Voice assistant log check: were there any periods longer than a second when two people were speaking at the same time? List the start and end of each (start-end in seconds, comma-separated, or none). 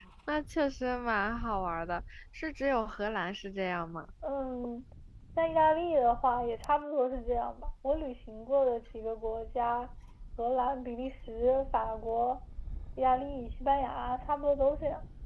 none